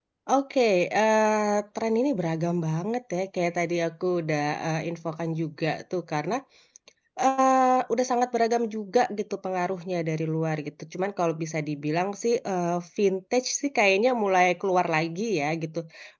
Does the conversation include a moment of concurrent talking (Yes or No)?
No